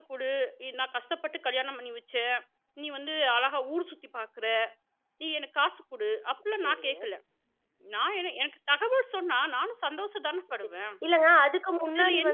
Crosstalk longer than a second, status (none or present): none